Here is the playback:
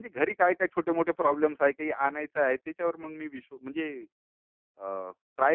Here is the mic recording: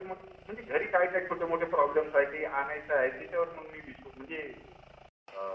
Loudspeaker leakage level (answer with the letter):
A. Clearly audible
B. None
A